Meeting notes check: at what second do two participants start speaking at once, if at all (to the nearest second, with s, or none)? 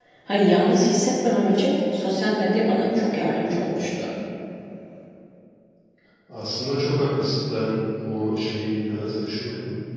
none